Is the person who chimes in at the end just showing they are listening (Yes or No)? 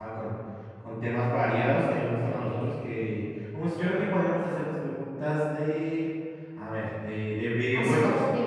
No